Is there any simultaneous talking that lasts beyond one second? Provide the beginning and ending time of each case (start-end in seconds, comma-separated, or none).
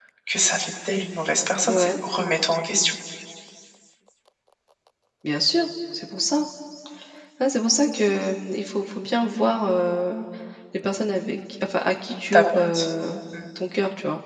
none